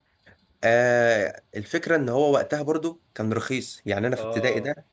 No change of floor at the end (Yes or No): Yes